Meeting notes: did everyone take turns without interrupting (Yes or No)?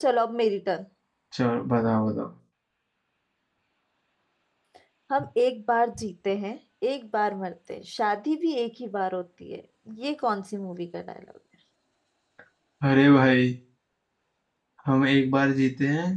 Yes